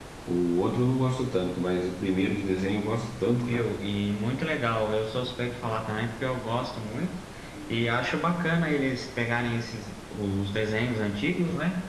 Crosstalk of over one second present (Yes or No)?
No